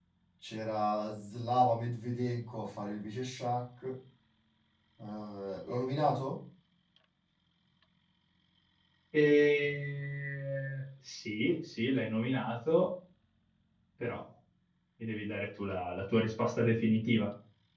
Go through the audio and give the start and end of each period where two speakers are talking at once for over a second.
none

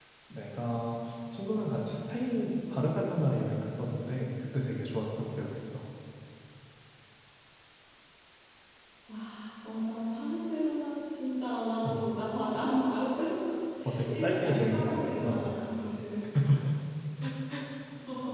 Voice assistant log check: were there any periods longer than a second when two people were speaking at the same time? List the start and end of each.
14.1-15.5

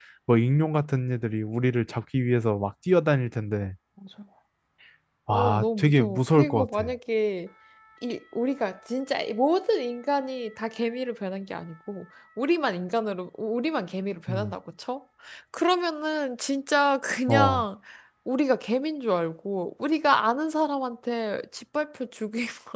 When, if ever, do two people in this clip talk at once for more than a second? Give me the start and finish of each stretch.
5.3-6.9

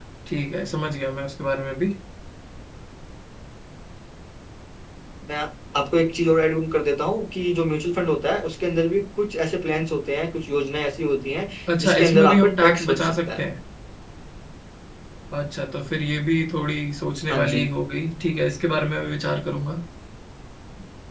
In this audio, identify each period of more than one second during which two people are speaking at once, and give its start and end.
11.8-13.5

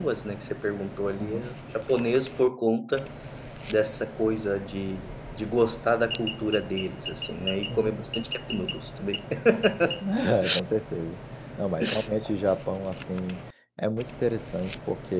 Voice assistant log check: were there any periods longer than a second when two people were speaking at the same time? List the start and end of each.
none

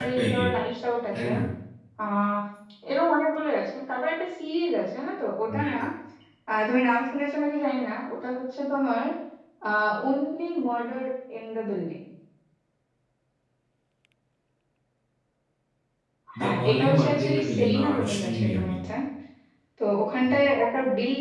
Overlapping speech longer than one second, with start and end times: 16.4-18.7

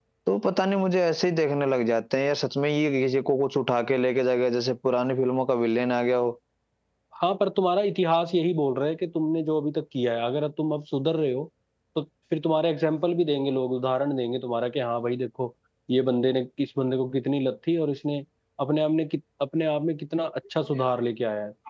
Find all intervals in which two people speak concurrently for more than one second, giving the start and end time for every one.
none

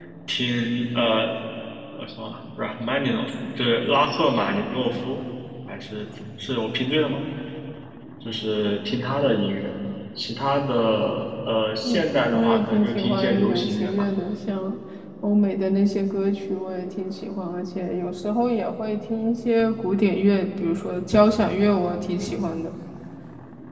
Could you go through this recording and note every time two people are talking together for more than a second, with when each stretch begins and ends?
11.8-14.0

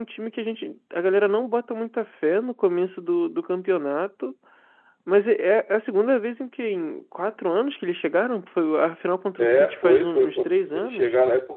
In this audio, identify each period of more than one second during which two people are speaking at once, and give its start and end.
9.4-11.1

